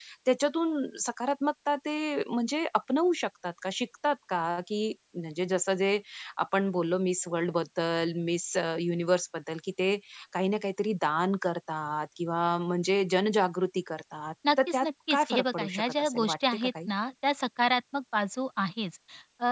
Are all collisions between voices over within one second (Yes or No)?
No